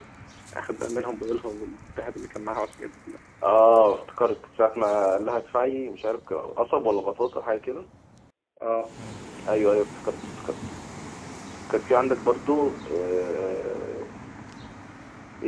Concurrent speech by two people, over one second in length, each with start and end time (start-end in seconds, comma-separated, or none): none